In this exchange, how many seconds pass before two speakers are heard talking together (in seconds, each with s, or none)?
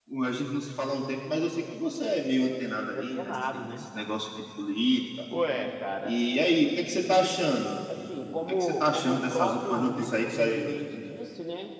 2.2 s